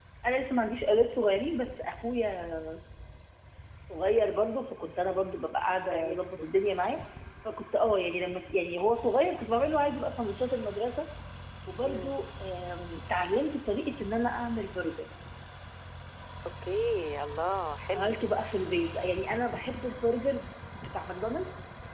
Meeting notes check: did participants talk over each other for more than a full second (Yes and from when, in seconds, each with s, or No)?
No